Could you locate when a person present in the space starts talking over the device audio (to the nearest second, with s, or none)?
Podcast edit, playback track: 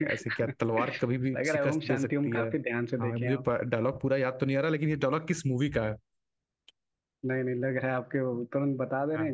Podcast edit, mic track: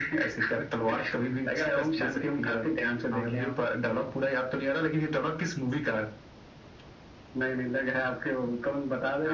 none